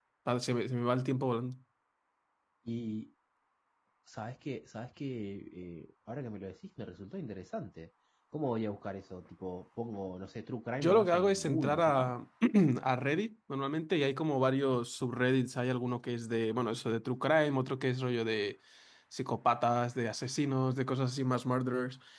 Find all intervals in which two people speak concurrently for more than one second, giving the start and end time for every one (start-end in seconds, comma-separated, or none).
10.8-12.1